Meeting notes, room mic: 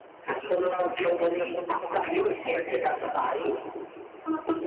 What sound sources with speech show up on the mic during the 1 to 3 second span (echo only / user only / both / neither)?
both